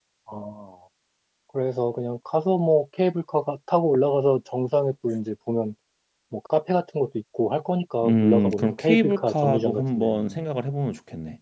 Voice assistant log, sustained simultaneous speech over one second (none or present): present